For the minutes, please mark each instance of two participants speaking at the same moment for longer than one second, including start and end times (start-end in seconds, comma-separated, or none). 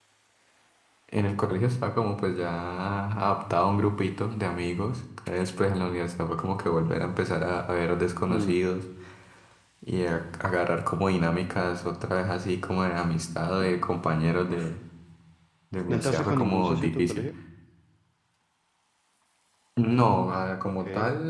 15.9-17.3